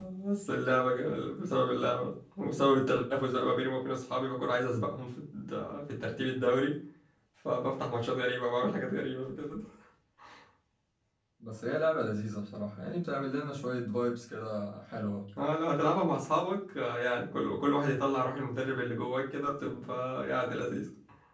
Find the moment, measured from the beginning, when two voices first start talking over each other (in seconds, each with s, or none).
none